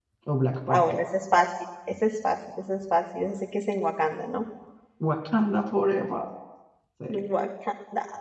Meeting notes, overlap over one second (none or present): none